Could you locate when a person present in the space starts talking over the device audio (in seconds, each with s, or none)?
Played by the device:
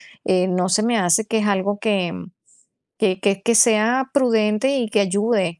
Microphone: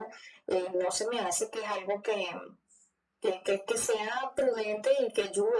none